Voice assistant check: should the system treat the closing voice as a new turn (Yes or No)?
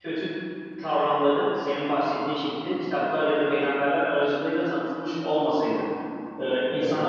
No